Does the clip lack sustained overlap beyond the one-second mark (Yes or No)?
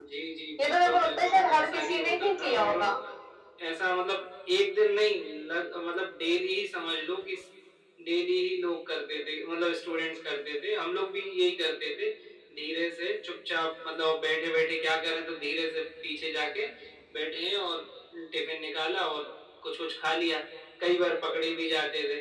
No